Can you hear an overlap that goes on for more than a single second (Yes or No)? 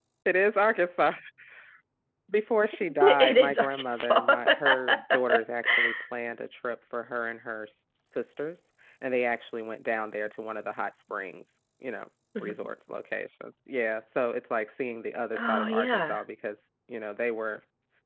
Yes